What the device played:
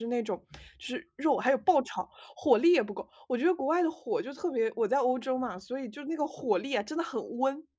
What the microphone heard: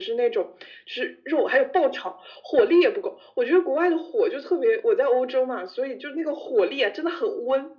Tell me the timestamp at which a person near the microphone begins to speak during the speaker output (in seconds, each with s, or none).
none